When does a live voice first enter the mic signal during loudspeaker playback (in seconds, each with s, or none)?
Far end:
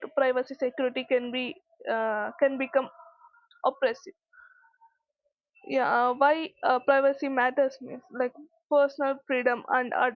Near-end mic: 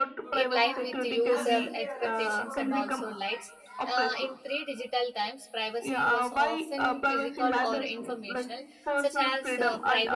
0.3 s